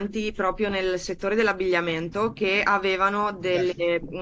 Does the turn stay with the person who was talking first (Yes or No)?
Yes